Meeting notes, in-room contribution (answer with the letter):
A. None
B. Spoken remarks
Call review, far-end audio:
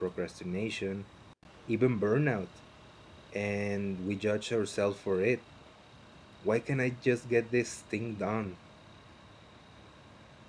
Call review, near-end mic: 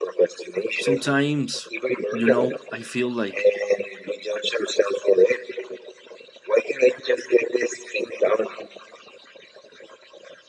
B